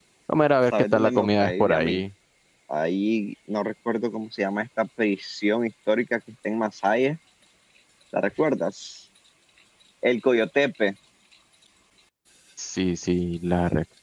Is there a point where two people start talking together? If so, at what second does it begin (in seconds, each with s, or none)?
0.7 s